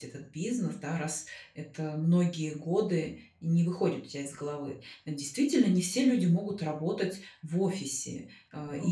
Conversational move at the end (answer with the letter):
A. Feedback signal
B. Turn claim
A